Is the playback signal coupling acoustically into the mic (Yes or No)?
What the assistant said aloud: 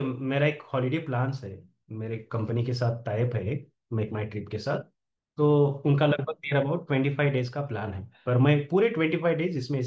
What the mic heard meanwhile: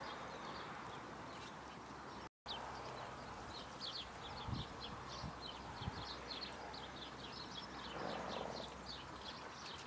No